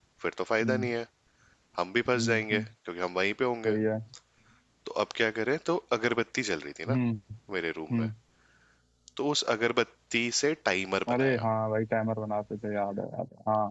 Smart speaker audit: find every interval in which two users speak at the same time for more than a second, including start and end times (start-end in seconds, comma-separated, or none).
none